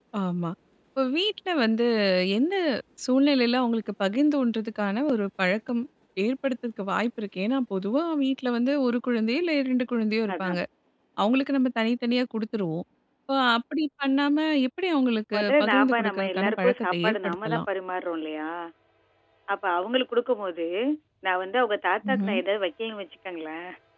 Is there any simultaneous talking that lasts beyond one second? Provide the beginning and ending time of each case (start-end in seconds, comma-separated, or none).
15.3-17.6